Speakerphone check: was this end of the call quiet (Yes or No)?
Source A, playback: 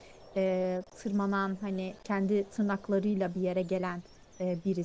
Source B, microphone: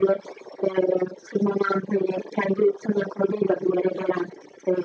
Yes